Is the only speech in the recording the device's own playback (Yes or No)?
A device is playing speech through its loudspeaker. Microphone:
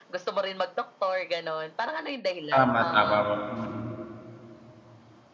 No